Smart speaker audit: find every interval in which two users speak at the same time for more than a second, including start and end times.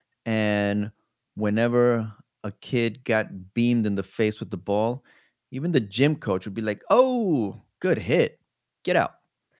none

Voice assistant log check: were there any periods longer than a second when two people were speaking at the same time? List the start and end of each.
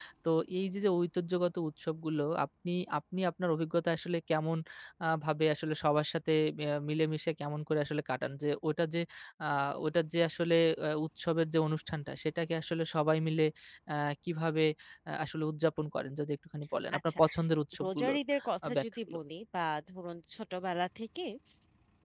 none

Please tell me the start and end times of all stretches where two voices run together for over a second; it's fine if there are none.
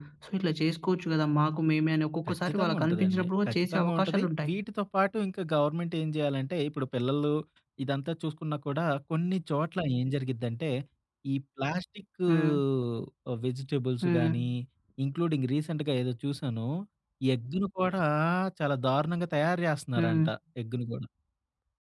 2.3-4.5

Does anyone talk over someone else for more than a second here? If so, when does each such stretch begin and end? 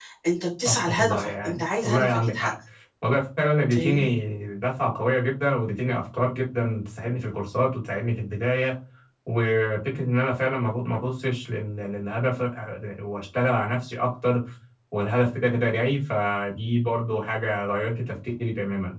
0.7-2.5

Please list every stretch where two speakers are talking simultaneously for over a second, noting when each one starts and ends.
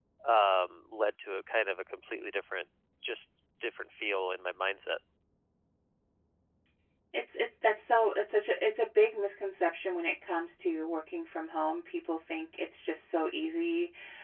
none

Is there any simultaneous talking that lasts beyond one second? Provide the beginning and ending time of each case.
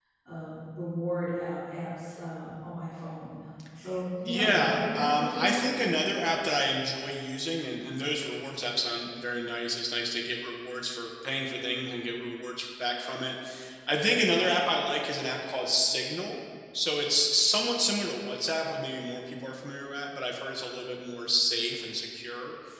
4.2-5.7

